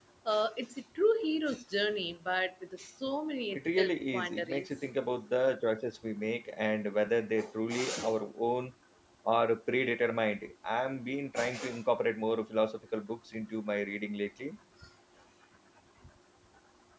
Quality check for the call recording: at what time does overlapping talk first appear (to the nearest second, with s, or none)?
4 s